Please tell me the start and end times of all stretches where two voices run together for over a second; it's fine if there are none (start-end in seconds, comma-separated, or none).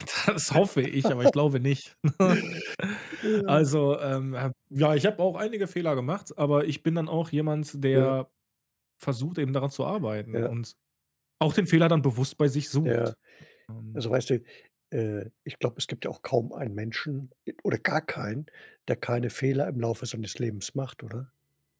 none